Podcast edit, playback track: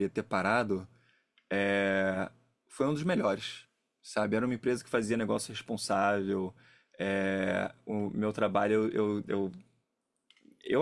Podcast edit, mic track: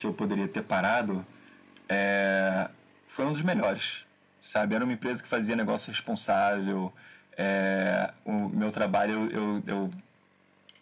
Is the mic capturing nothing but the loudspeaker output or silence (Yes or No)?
Yes